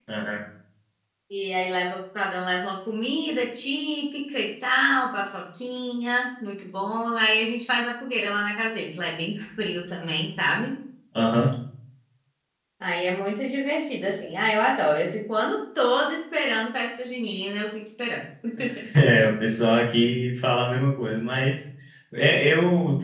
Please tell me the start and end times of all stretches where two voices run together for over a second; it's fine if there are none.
none

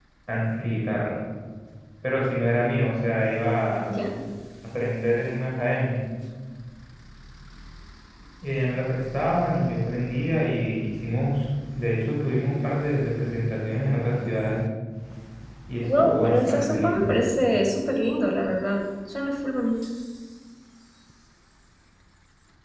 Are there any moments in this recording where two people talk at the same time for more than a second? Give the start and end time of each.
15.8-17.1

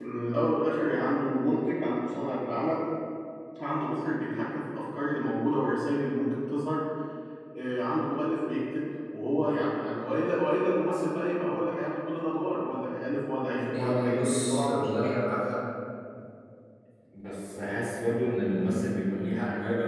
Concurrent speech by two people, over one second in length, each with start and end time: 13.7-15.1

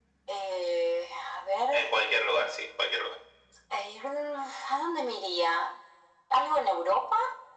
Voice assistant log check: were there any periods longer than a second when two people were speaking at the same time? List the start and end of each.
none

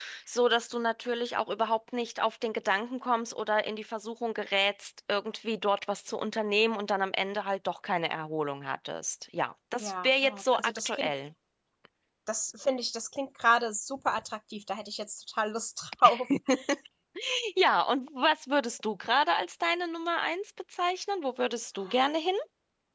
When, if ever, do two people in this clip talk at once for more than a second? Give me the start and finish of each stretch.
9.8-11.1

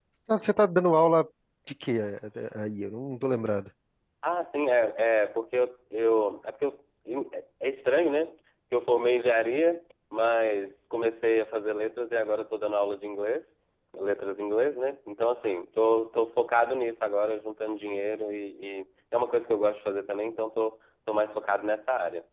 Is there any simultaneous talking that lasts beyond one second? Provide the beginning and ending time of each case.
none

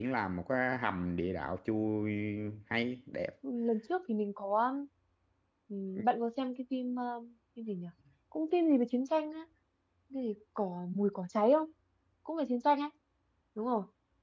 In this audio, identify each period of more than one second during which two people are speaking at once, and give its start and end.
none

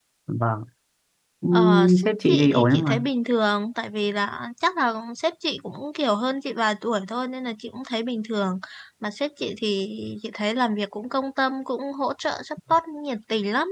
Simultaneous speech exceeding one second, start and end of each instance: 1.5-3.0

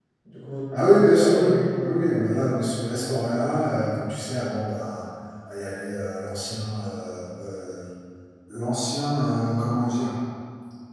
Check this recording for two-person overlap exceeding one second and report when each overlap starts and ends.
0.8-2.3

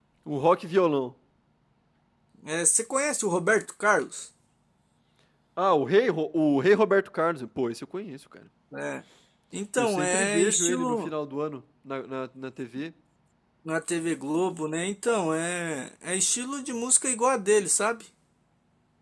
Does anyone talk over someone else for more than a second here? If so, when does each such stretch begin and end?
9.8-11.1

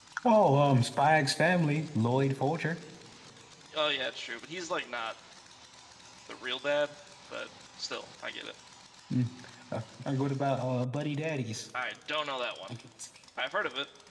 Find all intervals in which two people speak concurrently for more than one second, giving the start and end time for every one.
none

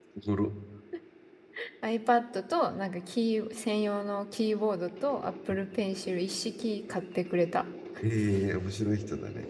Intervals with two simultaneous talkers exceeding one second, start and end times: none

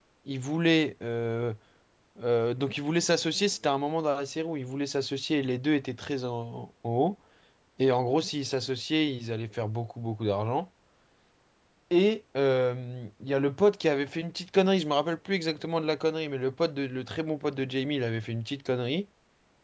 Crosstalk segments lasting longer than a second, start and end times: none

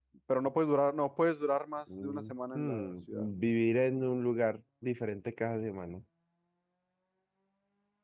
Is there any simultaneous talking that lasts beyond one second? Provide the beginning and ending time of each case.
2.0-3.3

